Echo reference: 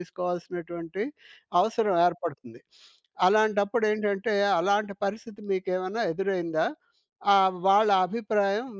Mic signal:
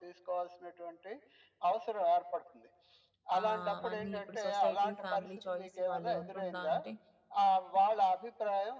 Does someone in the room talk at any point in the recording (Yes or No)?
Yes